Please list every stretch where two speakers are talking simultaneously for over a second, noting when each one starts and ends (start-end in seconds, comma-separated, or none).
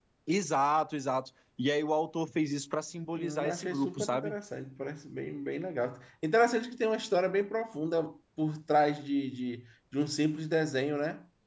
3.2-4.4